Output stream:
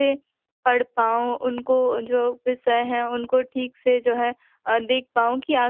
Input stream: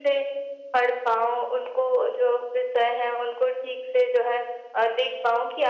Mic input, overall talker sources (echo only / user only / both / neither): echo only